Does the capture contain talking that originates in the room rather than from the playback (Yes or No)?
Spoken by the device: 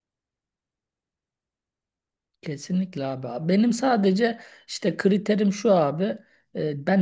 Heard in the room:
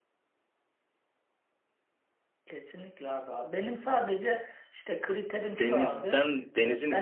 Yes